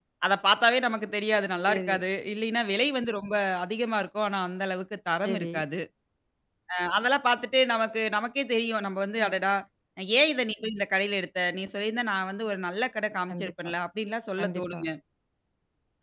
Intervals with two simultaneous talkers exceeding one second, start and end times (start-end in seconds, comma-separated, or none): none